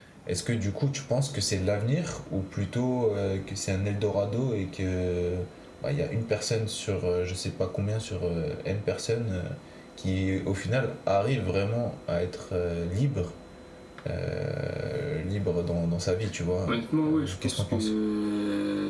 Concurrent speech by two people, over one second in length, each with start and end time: 16.7-17.9

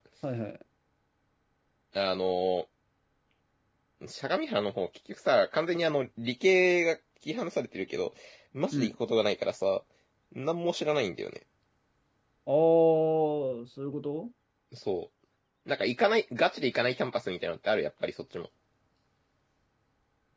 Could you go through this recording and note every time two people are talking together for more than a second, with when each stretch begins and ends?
none

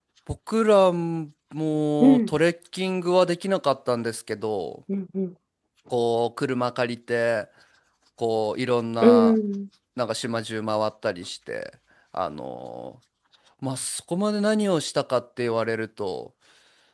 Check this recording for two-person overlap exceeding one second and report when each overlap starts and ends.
none

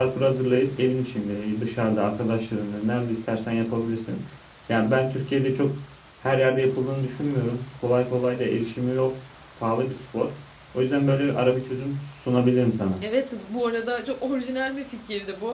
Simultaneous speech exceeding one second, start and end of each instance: none

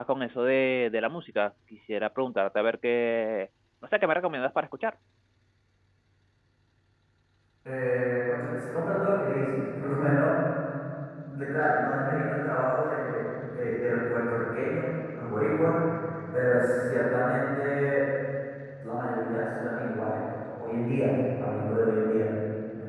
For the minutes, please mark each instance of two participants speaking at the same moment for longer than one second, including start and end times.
none

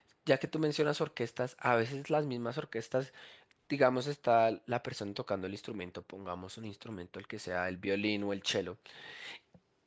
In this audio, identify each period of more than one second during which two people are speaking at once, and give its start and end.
none

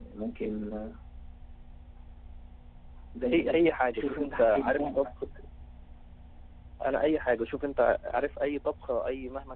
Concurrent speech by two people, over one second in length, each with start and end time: 3.3-5.1

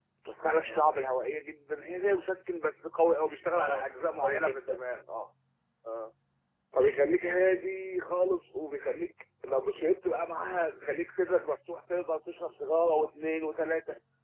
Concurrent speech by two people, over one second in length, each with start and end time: 3.6-4.9

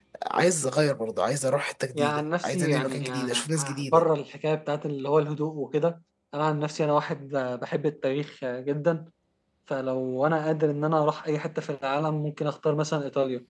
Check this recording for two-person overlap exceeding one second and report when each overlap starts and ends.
1.9-4.0

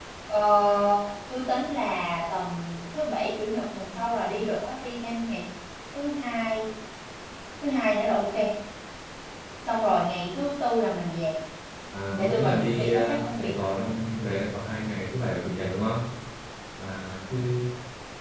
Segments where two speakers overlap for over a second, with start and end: 12.2-13.7

